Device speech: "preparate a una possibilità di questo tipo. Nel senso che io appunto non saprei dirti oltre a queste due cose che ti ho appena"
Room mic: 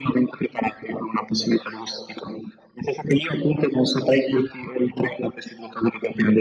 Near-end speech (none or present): none